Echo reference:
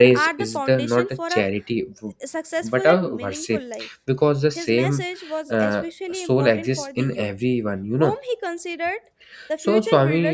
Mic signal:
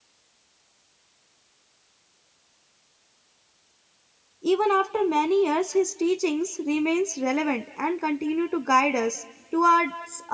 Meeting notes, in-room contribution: present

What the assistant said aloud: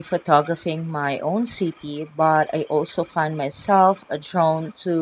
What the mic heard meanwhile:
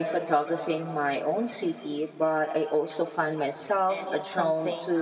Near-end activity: present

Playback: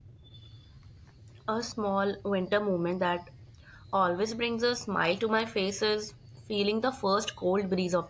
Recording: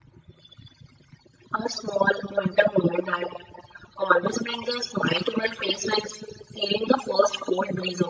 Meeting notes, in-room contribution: none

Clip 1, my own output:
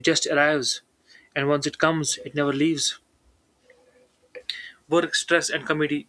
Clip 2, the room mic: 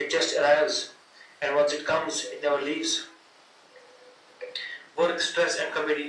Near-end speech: none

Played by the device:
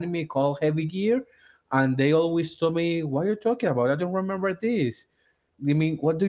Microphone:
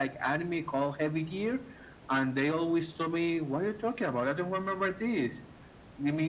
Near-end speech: none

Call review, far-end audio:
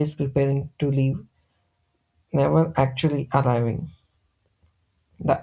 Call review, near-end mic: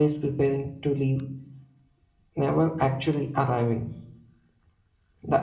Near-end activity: none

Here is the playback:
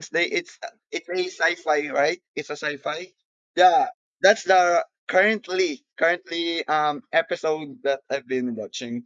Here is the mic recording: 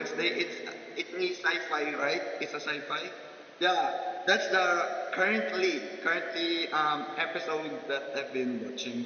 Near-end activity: none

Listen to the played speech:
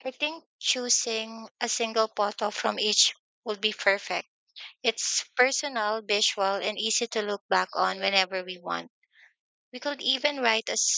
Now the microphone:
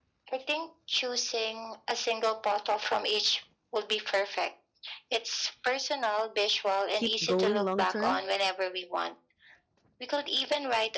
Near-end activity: present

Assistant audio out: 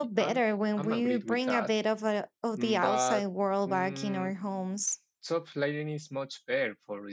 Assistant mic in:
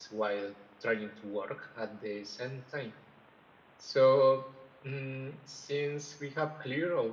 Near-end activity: present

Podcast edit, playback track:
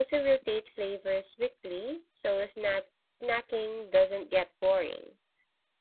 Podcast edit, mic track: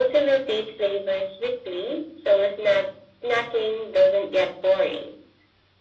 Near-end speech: none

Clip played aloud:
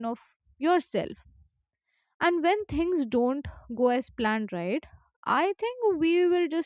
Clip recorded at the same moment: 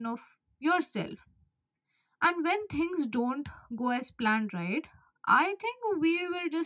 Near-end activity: none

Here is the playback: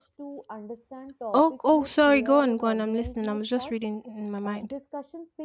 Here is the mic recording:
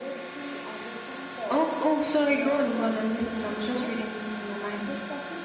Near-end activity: none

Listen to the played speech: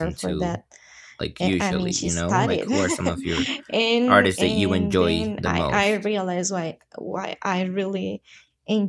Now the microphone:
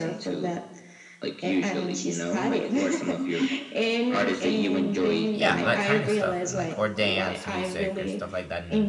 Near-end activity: present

